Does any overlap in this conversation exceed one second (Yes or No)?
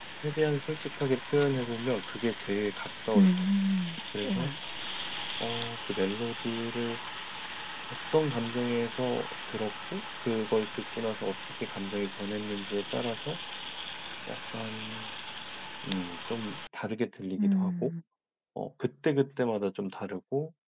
No